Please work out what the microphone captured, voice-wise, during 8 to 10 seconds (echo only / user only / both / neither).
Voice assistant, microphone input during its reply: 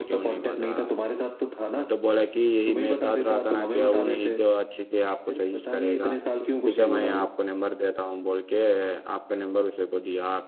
user only